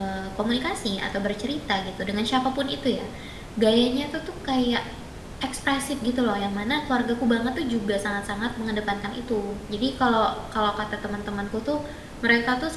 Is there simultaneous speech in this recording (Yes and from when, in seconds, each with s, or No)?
No